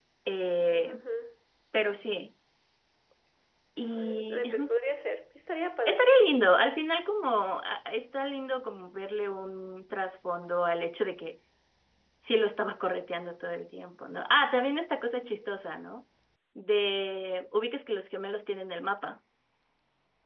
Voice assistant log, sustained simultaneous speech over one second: none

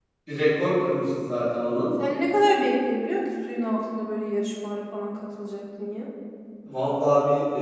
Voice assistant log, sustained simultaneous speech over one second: none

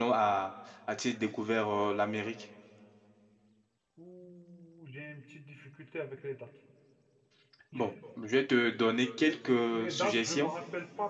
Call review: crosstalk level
present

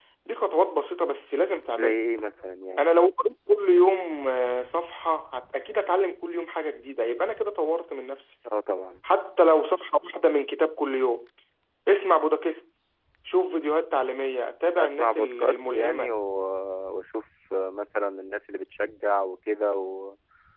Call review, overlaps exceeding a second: present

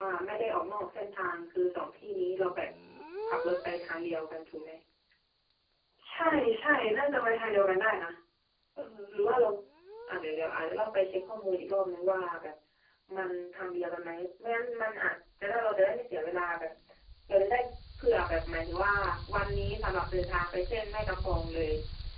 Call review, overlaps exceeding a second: none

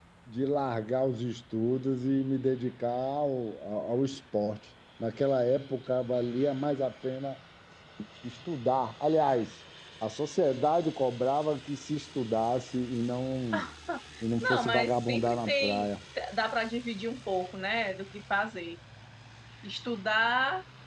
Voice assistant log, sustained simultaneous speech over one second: present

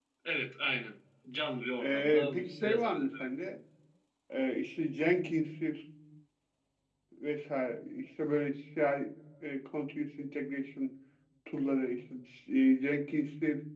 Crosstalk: present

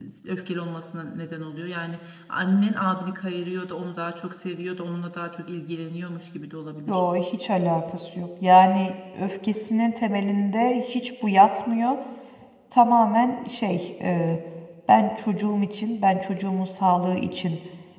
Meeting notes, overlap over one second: none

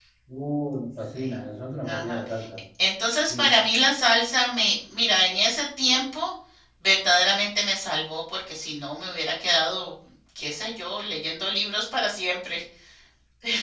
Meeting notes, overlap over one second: none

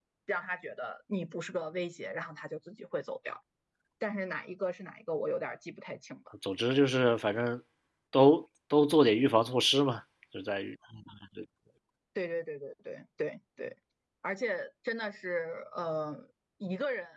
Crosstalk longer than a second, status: none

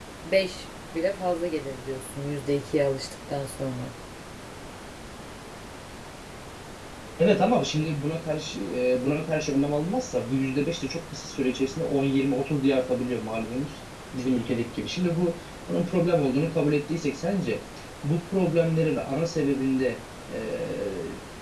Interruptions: none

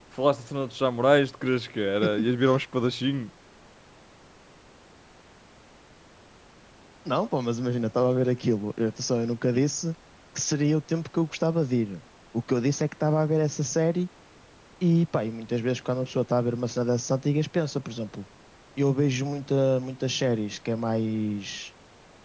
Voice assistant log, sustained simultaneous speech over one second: none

